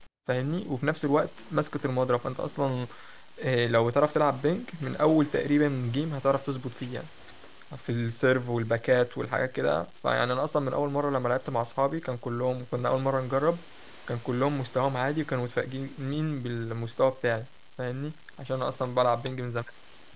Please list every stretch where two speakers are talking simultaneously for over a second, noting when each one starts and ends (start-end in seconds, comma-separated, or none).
none